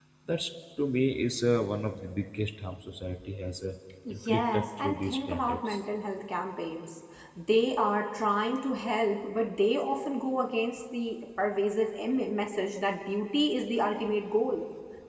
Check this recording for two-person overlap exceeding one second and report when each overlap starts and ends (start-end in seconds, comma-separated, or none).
4.3-5.8